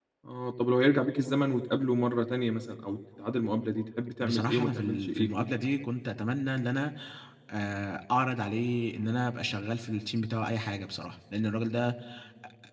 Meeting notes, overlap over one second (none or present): present